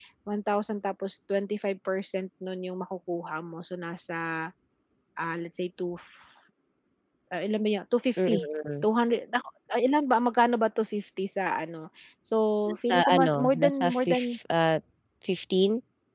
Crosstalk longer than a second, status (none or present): present